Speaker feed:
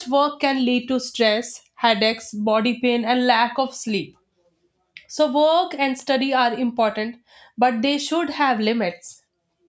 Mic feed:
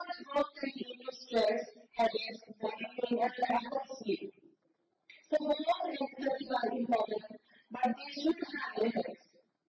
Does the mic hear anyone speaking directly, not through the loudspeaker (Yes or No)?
No